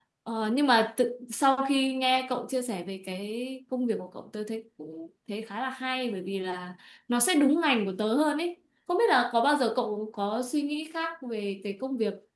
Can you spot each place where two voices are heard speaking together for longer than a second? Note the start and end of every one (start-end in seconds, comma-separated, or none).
none